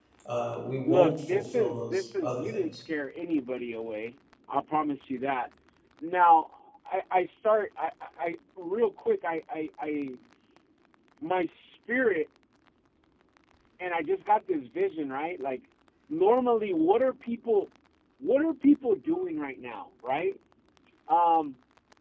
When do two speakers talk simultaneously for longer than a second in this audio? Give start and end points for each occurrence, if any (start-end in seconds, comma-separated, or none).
0.9-2.8